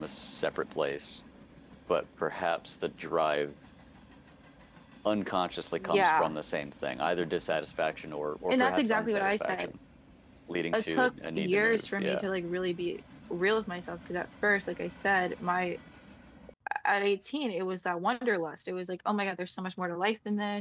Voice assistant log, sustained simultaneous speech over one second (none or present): present